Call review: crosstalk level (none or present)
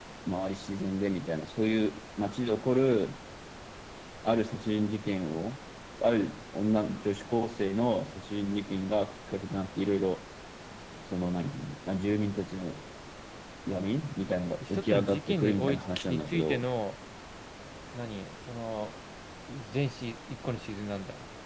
present